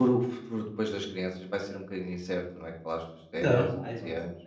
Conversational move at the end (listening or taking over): taking over